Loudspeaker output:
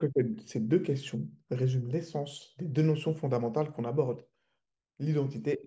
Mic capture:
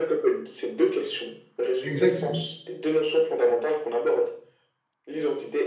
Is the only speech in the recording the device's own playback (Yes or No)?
No